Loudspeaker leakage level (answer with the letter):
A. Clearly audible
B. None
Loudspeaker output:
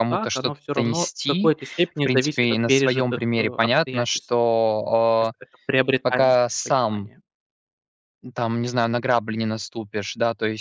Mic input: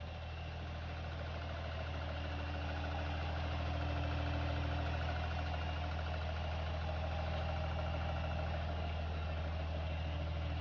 B